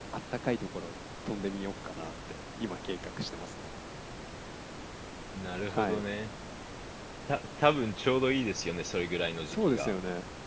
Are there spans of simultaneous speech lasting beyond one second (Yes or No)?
No